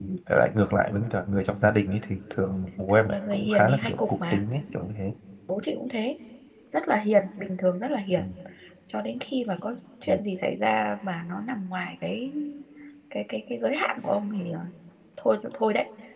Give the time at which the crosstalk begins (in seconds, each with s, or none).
2.9 s